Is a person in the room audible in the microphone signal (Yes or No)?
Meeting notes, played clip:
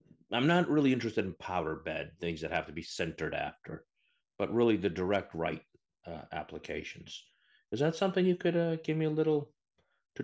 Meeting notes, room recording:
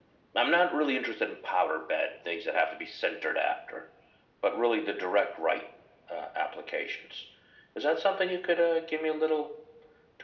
No